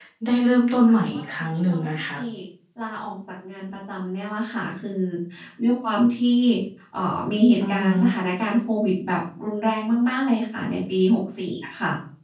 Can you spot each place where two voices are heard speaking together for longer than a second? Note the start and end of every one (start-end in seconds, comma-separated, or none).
0.9-2.1